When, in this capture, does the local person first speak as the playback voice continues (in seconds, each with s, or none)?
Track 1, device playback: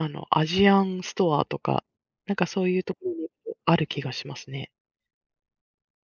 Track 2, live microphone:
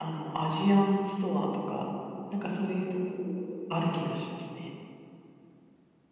none